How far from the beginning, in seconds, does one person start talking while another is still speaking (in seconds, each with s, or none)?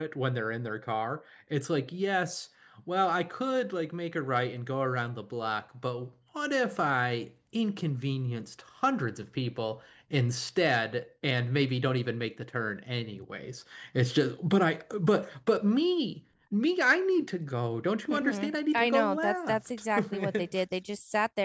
18.1 s